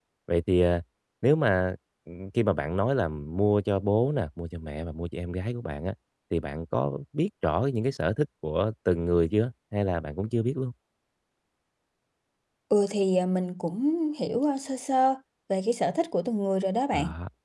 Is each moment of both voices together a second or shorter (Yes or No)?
Yes